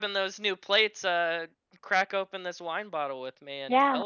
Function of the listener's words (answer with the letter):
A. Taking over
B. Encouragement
A